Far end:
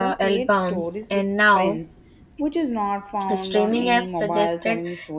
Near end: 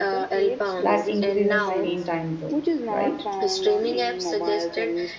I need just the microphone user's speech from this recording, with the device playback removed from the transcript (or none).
that increases screen time too, right?